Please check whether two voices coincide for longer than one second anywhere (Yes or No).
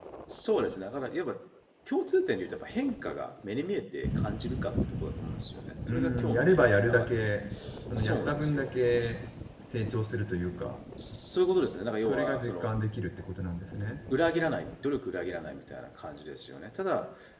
Yes